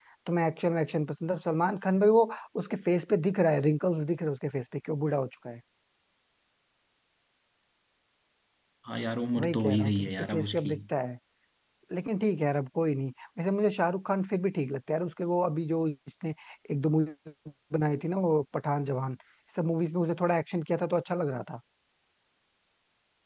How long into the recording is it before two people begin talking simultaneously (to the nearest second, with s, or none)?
9 s